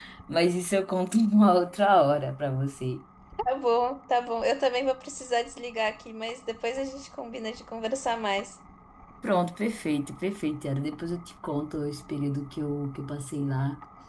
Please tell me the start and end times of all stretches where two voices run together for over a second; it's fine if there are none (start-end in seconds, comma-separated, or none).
none